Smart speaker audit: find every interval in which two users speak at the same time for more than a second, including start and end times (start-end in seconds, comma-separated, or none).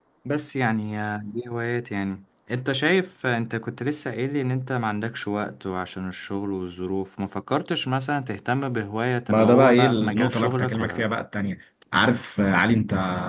9.3-11.1